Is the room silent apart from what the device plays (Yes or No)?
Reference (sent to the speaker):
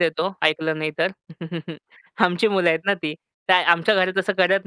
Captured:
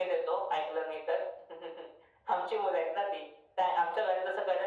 Yes